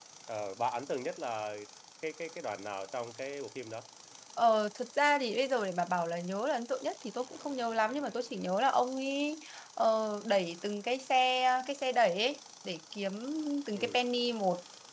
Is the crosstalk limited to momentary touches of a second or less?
Yes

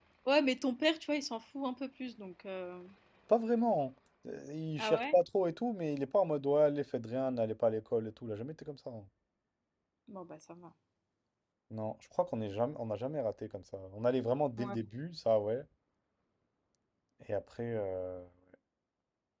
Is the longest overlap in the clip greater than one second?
No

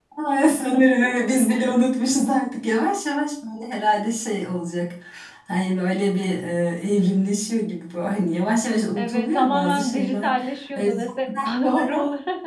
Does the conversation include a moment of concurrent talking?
Yes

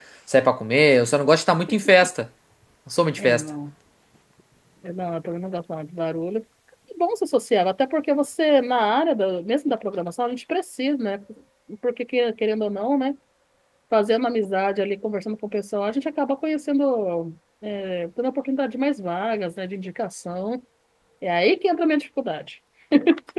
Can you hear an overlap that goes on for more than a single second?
No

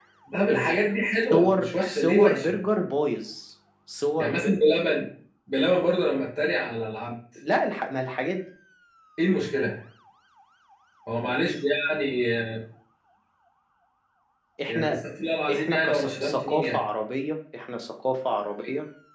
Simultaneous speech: Yes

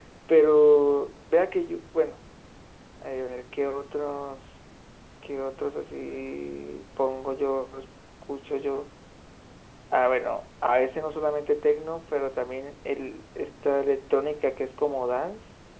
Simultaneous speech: No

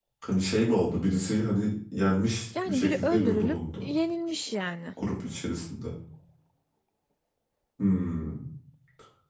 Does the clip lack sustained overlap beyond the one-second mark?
No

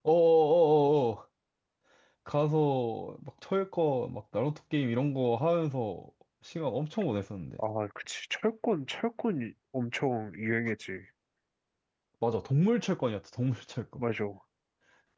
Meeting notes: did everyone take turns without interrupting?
Yes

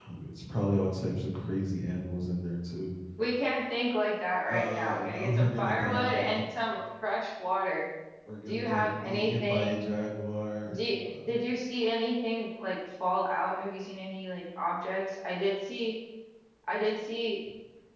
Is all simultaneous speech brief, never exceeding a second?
No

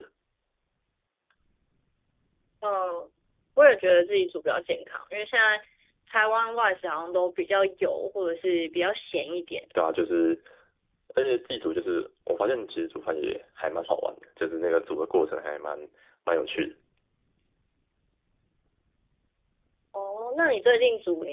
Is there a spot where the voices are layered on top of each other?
No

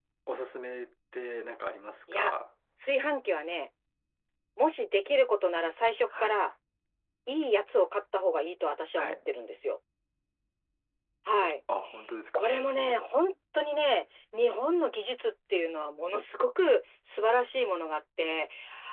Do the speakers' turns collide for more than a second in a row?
No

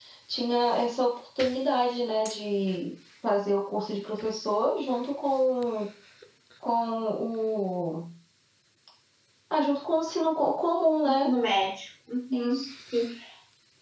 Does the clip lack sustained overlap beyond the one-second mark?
Yes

